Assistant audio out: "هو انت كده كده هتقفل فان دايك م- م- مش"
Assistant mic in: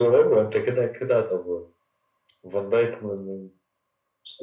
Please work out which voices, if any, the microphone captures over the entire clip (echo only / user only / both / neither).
echo only